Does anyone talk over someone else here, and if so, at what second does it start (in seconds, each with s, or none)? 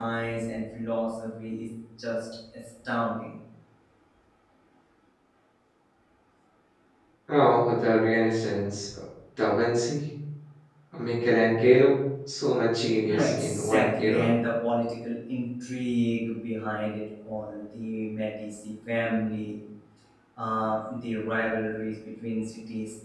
13.1 s